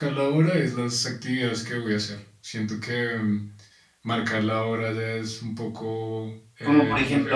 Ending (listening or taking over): taking over